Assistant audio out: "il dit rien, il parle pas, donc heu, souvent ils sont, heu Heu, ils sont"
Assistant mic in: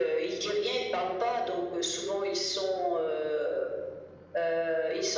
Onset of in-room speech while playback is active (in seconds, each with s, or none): none